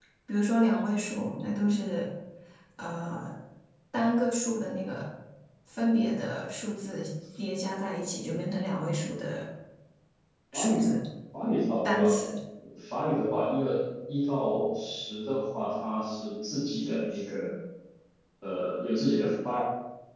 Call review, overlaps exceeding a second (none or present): none